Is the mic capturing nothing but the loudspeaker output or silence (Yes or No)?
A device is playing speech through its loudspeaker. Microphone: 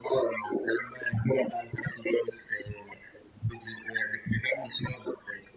Yes